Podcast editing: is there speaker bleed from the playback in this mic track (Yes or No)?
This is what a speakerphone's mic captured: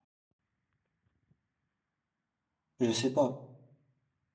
No